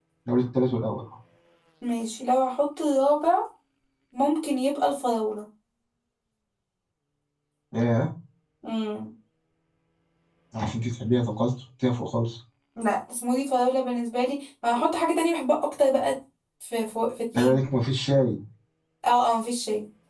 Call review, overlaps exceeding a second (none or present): none